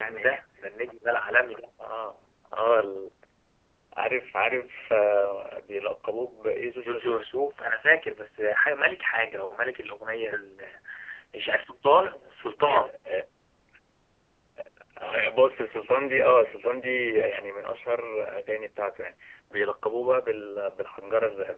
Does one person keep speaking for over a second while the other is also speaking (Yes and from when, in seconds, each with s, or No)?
No